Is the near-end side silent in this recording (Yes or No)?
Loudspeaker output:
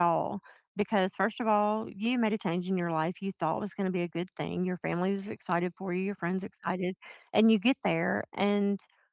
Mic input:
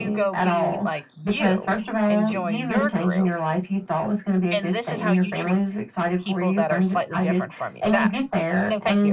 No